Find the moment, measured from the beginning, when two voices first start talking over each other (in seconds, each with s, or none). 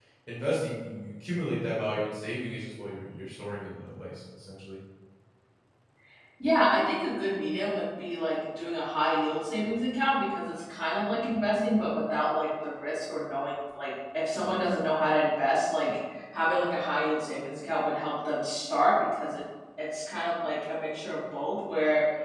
none